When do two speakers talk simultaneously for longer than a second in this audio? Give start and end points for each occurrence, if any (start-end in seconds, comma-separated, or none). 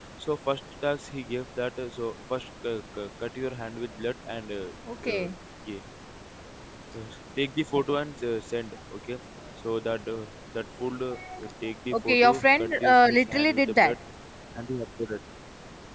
11.9-14.0